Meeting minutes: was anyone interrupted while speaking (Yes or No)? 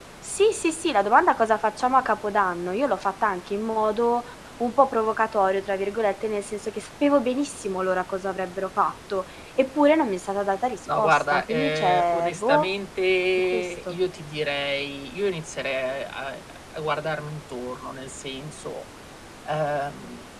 Yes